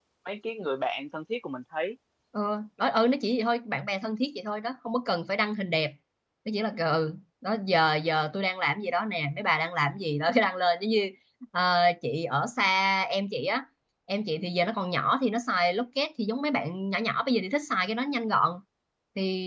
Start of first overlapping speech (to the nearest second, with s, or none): none